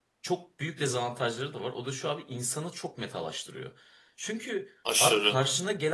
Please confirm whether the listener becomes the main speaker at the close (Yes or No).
No